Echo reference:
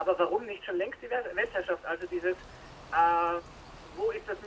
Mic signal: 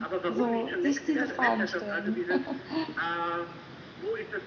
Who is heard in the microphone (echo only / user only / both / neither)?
both